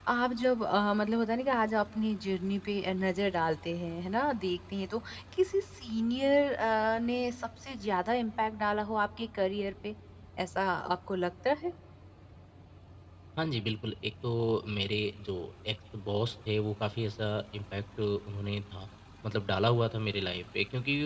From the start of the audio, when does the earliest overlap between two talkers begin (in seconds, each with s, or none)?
none